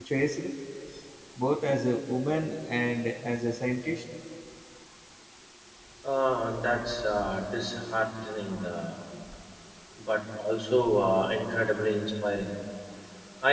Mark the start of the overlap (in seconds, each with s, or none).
none